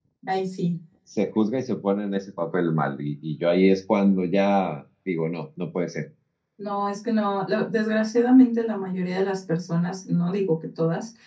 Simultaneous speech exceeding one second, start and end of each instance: none

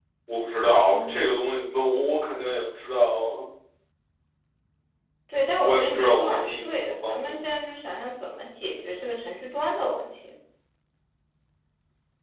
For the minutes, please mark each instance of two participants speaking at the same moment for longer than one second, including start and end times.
5.6-7.4

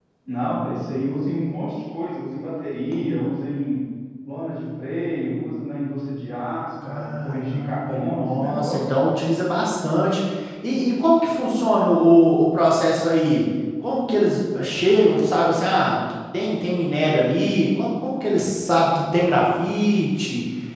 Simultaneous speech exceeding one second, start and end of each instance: 6.9-8.8

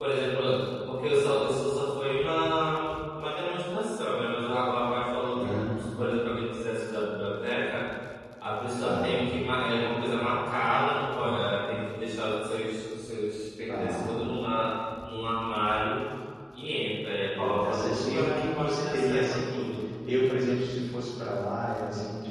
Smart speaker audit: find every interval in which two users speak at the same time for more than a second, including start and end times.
17.4-19.8

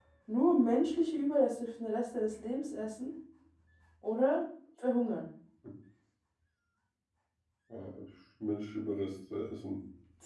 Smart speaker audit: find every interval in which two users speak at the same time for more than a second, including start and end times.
none

